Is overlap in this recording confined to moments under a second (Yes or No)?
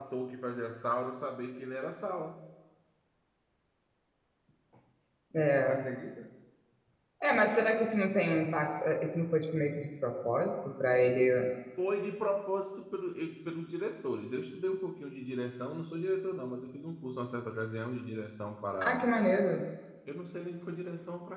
Yes